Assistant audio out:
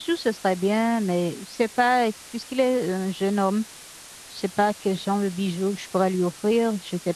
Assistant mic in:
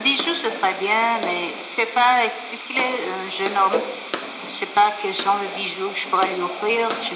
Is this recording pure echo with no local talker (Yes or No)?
Yes